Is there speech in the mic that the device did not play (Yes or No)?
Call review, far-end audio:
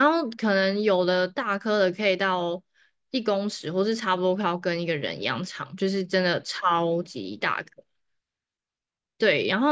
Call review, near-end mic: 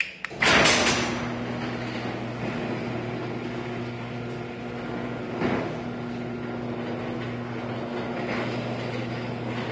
No